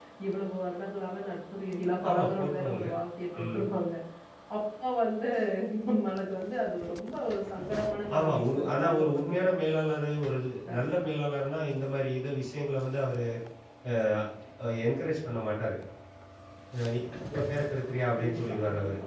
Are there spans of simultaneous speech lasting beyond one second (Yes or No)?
Yes